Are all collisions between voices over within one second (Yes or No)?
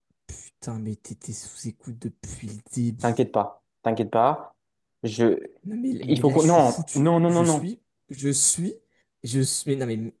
No